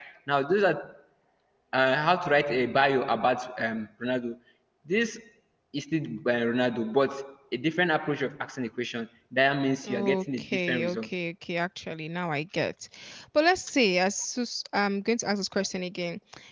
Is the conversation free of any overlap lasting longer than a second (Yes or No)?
No